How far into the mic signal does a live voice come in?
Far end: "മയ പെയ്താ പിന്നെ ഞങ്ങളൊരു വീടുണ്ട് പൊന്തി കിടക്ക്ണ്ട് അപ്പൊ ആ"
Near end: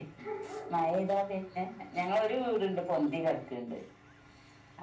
none

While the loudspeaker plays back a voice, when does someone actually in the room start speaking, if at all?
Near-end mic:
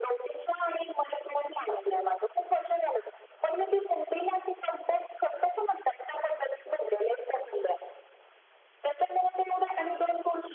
none

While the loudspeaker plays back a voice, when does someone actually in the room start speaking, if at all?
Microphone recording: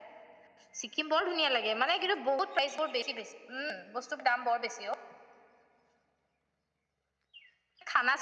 none

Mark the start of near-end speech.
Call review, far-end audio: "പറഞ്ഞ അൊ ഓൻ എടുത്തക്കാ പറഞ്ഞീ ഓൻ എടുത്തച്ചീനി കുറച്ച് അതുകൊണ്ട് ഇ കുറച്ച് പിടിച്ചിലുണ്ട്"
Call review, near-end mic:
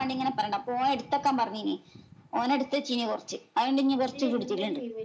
4.1 s

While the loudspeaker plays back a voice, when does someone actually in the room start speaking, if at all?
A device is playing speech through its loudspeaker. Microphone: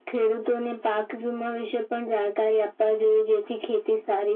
none

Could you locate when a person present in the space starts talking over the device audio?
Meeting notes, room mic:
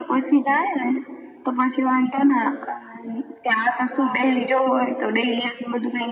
4.0 s

